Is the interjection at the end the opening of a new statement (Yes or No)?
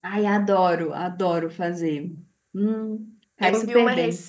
Yes